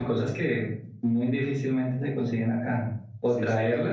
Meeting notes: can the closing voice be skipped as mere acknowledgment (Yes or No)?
Yes